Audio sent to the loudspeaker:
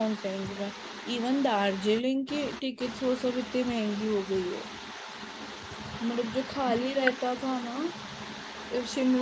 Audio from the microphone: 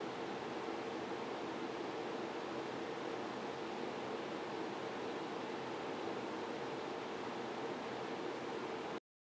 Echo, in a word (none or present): none